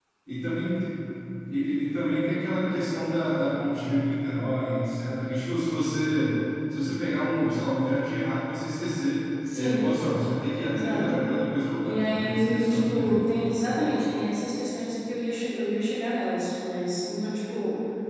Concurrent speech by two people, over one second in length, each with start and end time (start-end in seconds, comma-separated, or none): 11.8-13.2